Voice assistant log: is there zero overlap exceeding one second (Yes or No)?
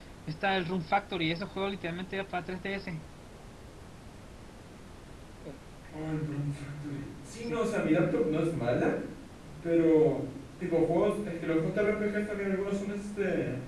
Yes